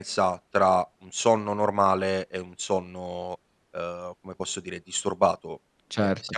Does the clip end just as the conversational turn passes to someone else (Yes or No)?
No